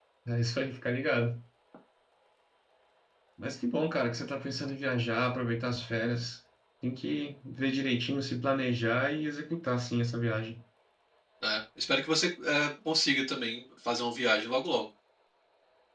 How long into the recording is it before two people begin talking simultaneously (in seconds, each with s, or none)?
none